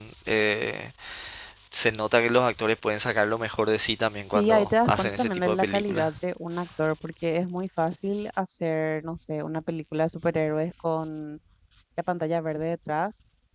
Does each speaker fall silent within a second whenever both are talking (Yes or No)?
No